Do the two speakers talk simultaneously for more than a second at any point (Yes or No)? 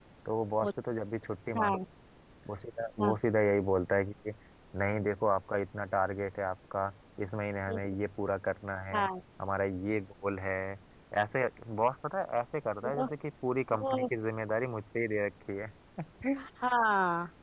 No